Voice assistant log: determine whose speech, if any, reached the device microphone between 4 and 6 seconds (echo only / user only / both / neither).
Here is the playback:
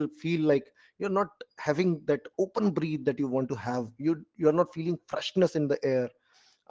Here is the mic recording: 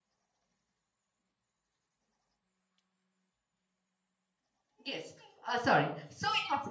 user only